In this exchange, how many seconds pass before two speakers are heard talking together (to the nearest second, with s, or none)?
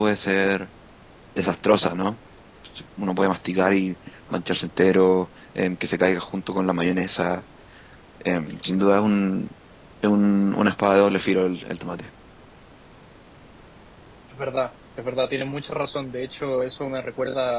none